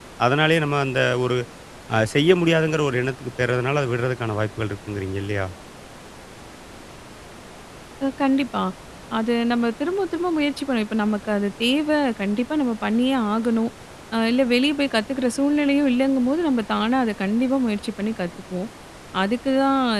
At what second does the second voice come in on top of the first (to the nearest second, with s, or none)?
none